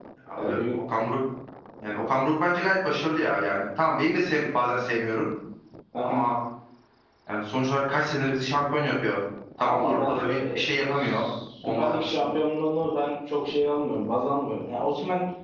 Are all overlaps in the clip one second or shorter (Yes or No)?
No